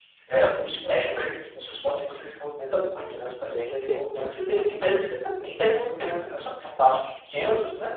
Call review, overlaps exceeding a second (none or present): present